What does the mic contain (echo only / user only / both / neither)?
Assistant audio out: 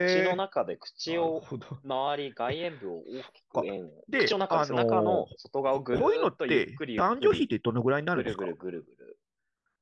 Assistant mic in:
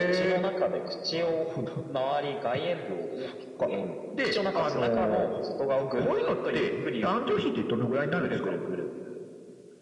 echo only